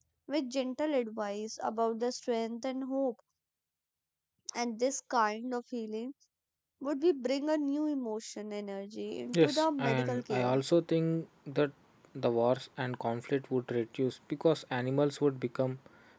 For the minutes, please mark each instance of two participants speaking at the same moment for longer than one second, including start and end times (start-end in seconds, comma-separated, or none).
9.3-10.5